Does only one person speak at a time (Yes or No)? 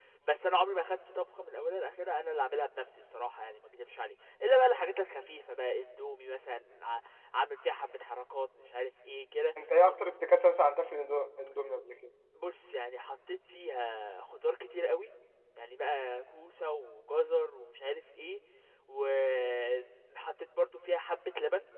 Yes